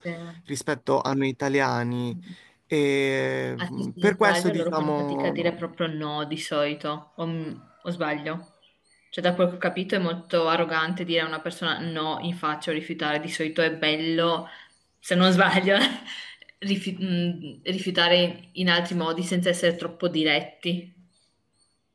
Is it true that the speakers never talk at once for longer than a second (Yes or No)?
No